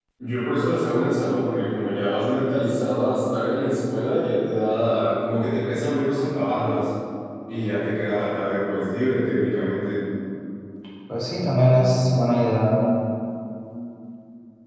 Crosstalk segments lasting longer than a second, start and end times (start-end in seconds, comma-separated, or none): none